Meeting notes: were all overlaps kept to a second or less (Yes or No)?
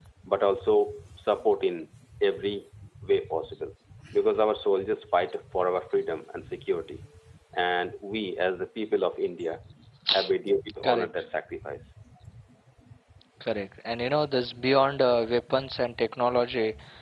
Yes